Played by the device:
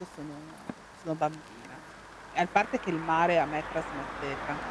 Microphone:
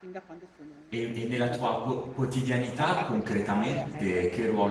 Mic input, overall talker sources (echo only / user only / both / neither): both